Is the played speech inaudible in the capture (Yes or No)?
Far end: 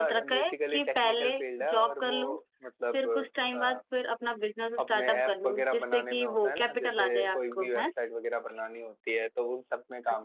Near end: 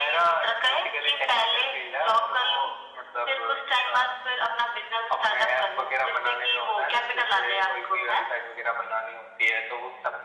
No